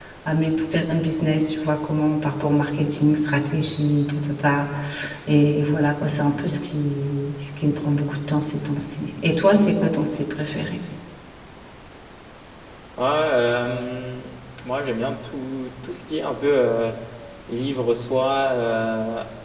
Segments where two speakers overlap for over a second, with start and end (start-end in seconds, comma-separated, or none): none